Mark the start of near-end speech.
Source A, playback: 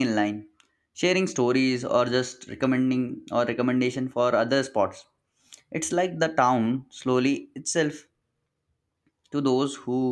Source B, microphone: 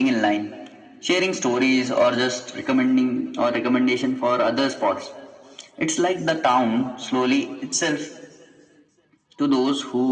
none

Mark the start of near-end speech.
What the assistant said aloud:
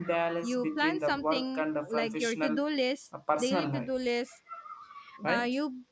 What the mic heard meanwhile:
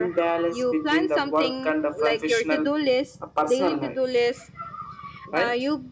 none

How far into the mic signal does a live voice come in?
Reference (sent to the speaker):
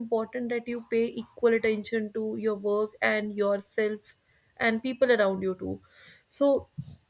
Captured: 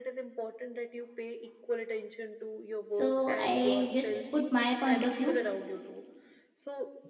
2.8 s

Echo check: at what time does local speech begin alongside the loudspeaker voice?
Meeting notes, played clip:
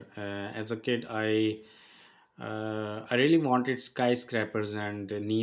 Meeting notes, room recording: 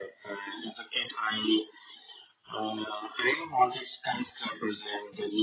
none

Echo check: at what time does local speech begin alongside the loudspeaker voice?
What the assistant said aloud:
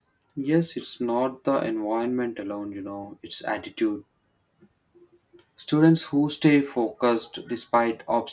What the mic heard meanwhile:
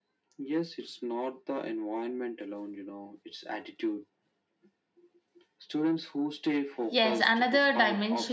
6.9 s

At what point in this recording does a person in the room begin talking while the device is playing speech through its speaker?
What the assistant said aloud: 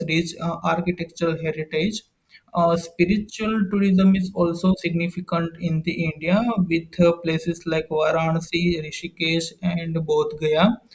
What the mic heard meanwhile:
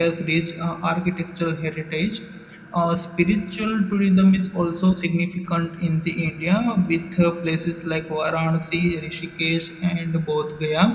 none

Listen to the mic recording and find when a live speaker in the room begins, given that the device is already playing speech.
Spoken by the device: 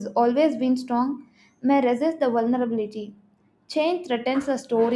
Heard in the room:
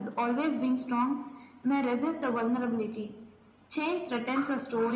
none

